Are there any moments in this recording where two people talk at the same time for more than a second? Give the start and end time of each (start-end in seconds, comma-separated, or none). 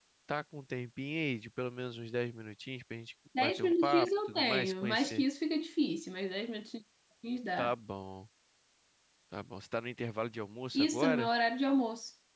3.4-5.2